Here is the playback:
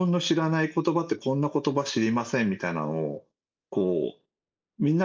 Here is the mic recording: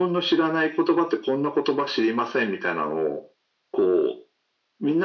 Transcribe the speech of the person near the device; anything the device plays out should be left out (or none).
none